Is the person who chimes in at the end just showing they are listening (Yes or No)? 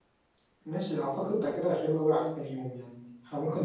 Yes